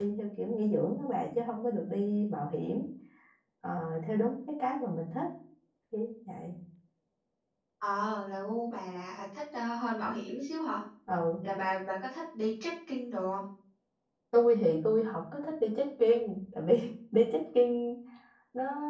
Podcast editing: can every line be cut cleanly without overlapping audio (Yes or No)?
Yes